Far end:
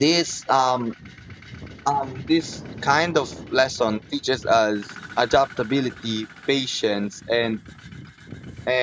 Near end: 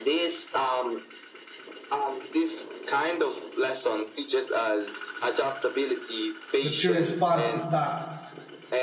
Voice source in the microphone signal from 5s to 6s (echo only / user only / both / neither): echo only